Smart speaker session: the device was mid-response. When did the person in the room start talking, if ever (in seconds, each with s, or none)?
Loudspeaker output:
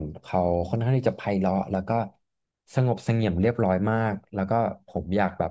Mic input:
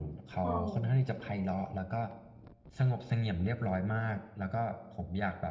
0.4 s